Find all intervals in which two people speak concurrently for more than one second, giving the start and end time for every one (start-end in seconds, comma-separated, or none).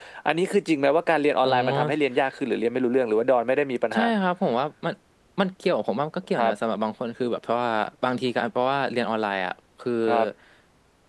none